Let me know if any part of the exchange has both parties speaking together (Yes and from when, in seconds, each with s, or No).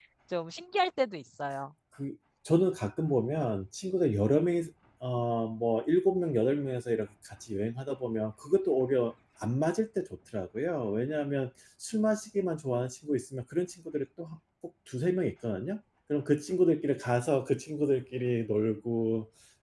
No